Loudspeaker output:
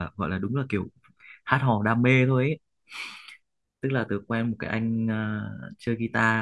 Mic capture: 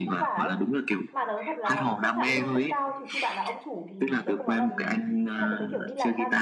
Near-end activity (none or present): present